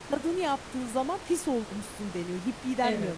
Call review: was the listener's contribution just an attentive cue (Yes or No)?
No